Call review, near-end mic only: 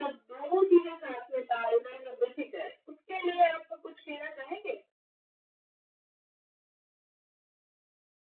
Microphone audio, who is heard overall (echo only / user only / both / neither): echo only